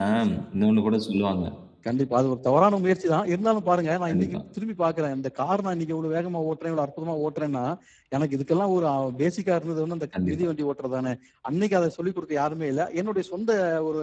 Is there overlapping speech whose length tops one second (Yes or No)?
No